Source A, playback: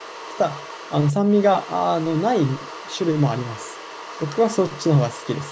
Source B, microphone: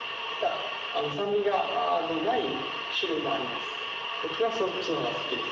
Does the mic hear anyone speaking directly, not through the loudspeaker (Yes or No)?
No